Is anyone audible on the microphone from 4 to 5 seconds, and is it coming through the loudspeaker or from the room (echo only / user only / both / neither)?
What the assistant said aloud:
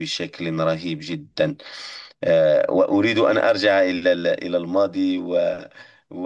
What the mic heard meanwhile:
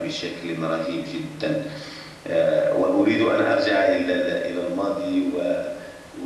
echo only